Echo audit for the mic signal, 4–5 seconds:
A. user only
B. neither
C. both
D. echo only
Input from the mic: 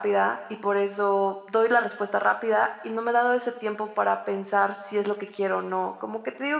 D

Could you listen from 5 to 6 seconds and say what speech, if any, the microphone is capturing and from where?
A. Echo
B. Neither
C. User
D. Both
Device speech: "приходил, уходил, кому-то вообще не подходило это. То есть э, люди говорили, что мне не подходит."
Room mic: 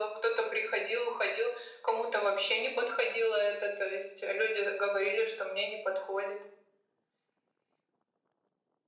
A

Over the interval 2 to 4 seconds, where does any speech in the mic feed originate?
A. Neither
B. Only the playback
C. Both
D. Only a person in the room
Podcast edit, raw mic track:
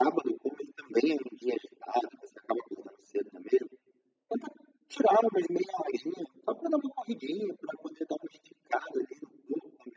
B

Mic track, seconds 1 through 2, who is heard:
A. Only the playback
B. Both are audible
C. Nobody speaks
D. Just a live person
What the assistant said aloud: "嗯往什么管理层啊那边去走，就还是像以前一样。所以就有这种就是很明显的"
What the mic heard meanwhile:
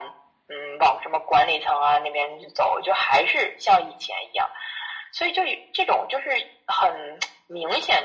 A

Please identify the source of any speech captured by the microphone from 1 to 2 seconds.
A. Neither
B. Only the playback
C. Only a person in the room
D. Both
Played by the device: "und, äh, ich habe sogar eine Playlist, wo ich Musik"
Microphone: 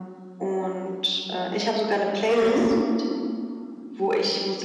B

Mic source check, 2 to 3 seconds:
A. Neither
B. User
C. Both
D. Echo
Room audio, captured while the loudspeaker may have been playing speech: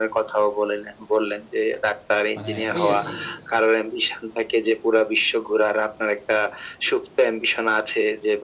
C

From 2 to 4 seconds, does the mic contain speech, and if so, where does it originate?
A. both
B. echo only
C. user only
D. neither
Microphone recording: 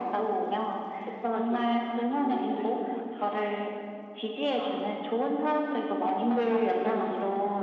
B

